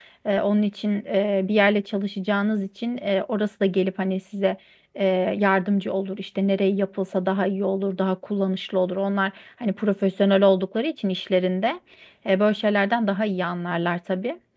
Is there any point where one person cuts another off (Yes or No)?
No